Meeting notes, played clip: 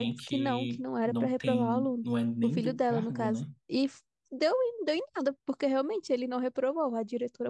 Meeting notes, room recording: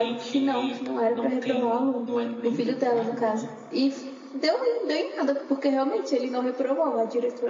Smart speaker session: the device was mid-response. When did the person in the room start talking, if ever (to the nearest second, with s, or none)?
none